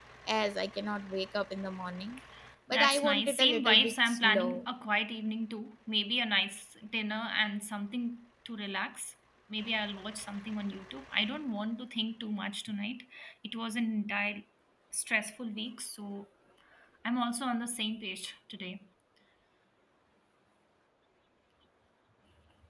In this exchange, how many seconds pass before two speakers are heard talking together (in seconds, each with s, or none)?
2.7 s